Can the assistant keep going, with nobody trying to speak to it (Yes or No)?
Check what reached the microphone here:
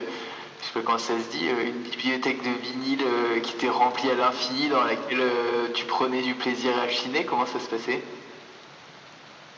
Yes